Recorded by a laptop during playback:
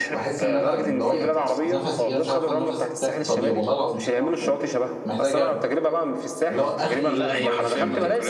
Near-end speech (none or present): present